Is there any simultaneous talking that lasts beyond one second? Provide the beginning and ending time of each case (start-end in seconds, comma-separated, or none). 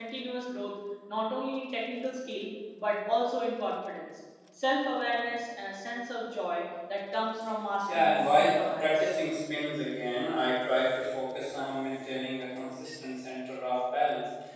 7.9-9.1